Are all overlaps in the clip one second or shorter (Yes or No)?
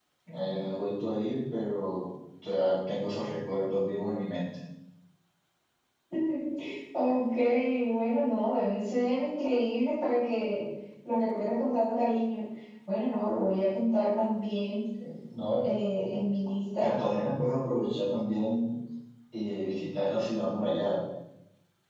Yes